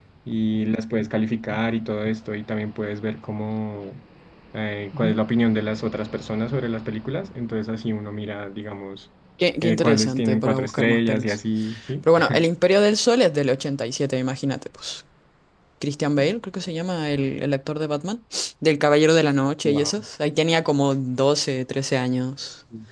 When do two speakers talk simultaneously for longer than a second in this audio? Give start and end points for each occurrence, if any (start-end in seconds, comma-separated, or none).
9.6-11.4